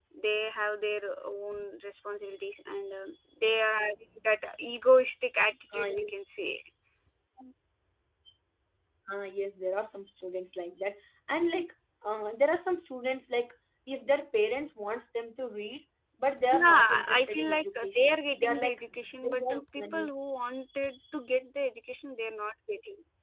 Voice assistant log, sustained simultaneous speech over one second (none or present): present